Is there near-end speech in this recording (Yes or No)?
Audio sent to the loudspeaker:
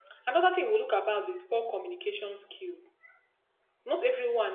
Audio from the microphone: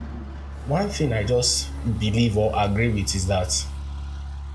Yes